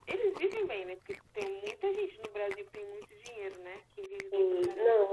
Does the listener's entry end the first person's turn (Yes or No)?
Yes